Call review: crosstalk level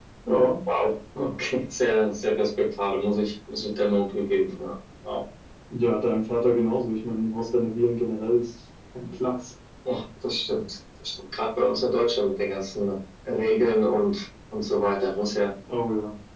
none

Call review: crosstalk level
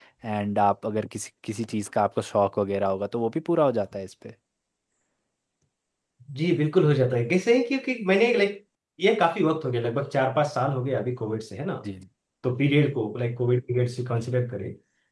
none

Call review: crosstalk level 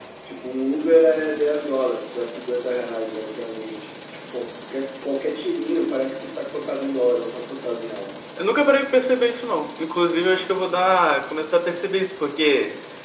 none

